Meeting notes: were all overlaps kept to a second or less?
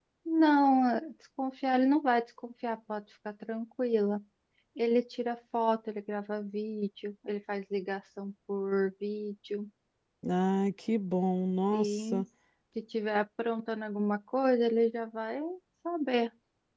Yes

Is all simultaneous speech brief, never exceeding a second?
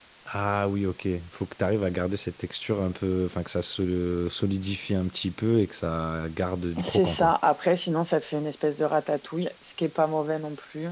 Yes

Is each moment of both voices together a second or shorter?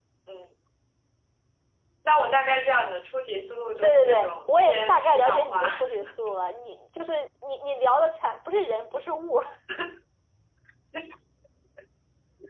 No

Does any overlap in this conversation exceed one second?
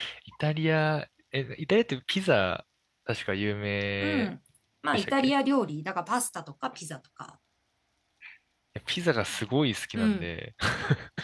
No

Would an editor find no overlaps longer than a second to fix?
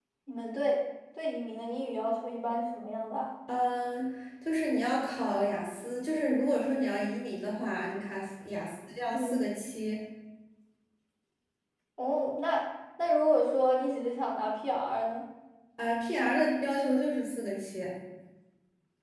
Yes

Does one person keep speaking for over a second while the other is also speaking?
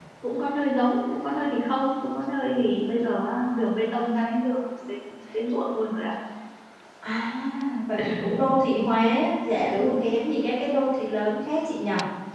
No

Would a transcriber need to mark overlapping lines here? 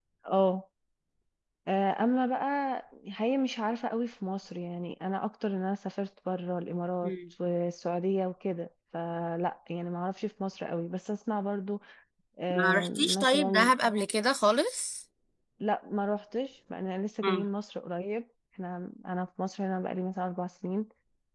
Yes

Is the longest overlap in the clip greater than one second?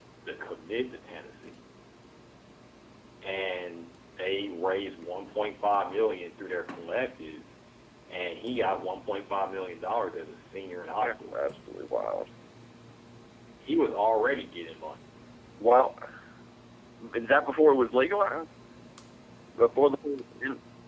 No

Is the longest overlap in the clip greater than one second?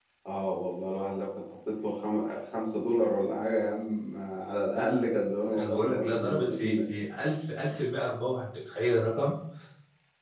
Yes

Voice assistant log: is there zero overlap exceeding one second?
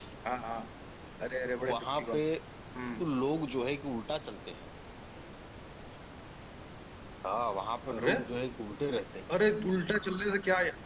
Yes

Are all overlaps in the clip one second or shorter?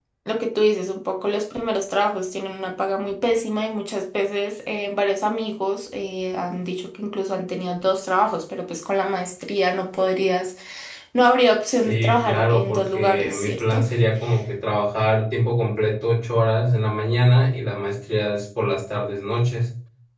No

